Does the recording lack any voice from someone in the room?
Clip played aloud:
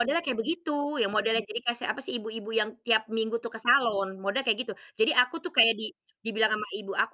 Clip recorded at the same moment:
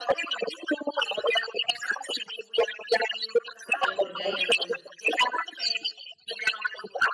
No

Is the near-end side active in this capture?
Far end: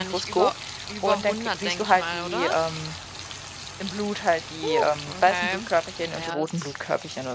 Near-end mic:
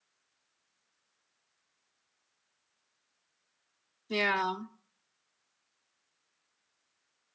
Yes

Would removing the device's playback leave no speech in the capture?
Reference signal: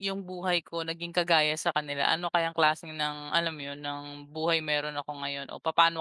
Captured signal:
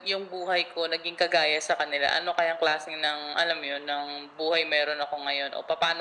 Yes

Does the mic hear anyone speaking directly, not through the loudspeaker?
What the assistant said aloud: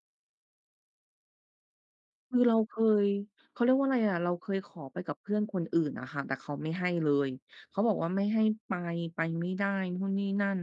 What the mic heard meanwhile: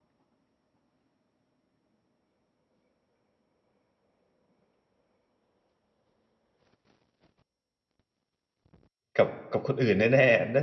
Yes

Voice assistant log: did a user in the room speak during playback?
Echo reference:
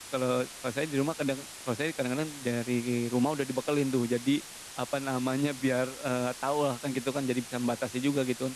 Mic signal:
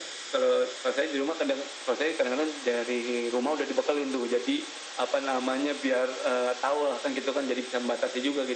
No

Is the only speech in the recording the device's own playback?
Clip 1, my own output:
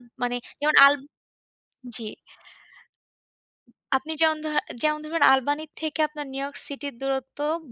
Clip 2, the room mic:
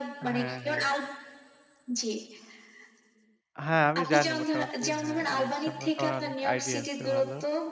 No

